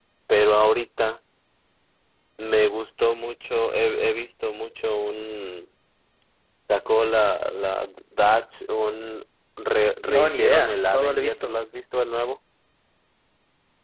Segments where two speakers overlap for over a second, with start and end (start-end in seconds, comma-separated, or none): 10.1-11.6